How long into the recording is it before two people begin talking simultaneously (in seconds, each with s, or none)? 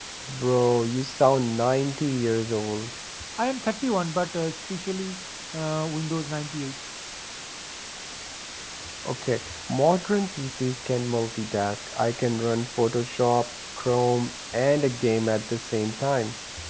none